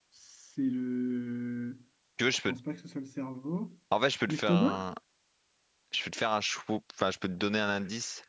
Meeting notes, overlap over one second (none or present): none